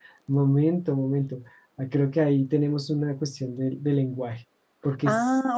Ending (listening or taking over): taking over